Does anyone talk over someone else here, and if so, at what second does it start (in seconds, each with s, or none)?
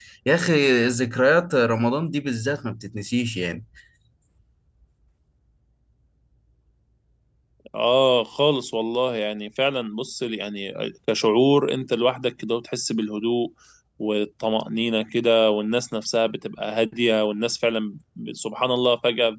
none